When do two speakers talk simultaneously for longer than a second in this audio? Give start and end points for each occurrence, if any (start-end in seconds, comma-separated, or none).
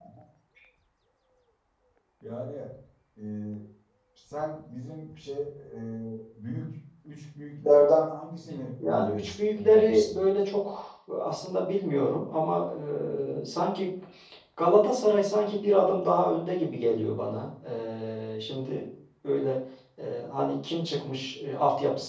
8.8-10.2